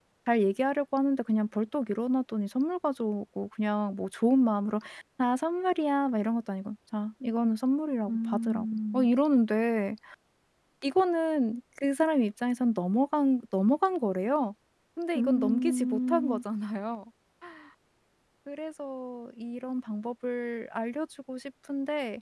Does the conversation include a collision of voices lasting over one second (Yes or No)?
Yes